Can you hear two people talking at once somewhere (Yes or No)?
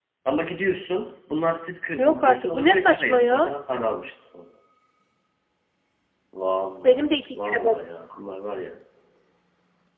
Yes